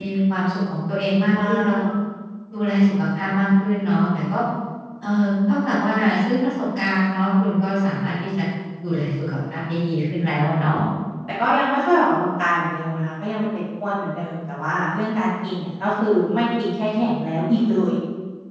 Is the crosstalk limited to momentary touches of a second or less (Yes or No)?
Yes